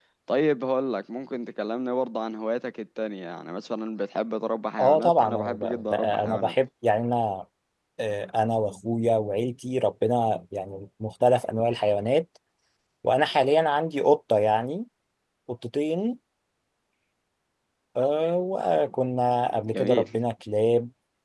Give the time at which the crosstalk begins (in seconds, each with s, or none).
4.8 s